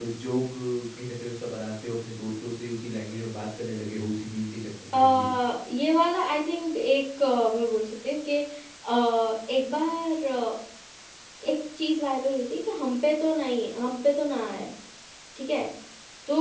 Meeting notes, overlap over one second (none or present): none